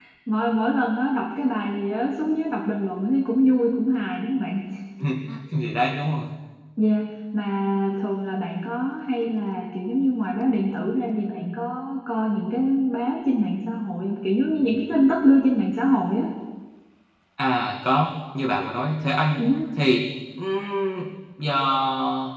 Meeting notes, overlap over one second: none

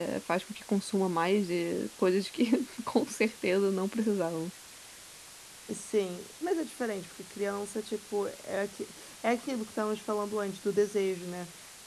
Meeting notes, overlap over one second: none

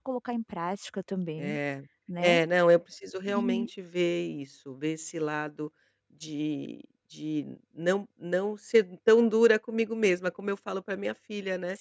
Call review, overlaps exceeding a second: none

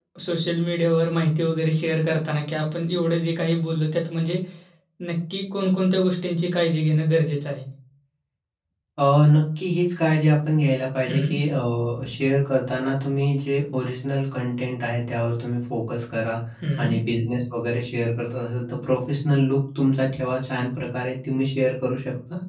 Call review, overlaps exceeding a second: none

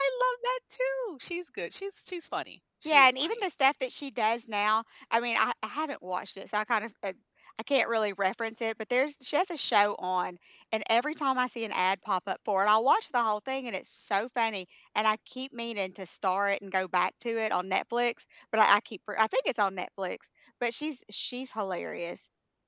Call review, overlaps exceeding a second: none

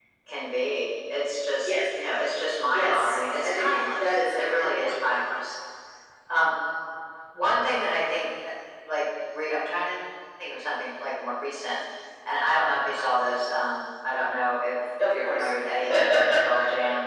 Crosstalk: present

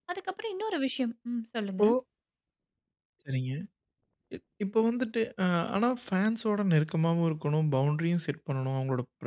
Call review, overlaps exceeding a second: none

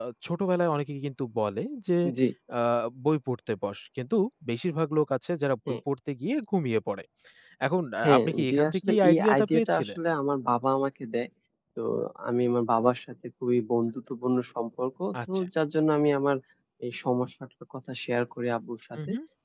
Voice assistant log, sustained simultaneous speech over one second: present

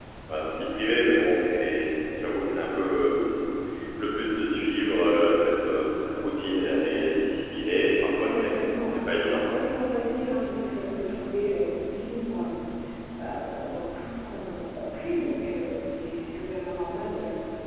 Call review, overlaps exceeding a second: present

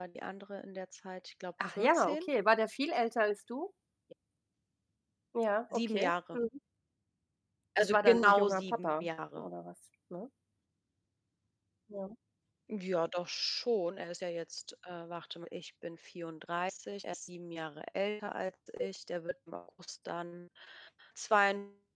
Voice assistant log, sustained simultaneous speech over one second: present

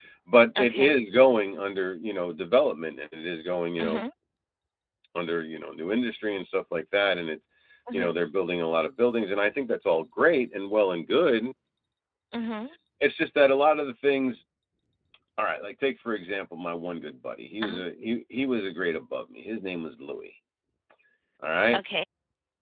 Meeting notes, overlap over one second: none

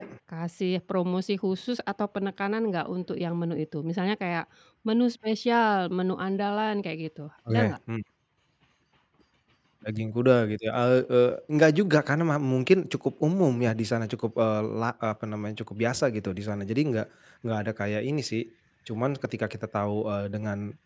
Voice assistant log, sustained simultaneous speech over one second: none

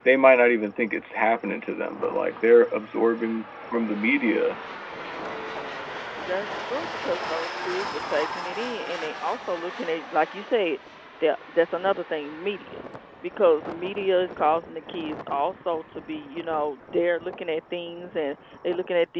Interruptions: none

